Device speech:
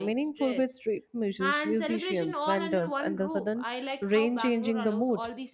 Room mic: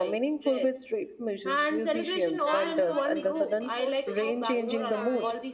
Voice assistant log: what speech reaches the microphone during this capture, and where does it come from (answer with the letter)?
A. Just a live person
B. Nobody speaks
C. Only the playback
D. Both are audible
D